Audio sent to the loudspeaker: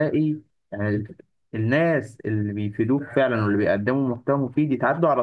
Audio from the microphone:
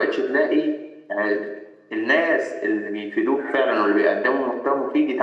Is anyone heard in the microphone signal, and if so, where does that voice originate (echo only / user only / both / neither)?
echo only